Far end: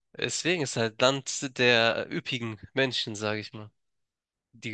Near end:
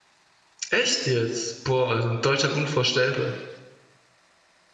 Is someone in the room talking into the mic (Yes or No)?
Yes